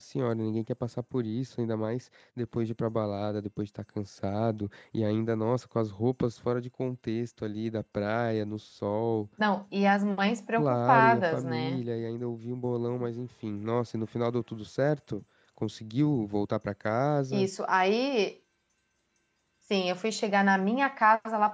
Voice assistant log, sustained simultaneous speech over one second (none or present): present